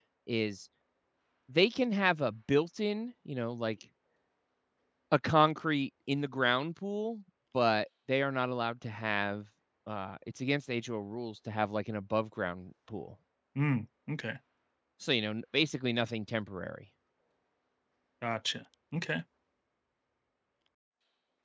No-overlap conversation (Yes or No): Yes